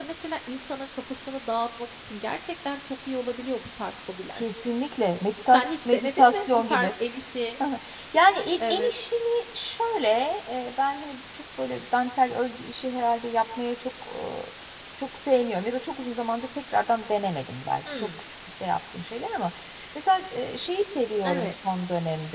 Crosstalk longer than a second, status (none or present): present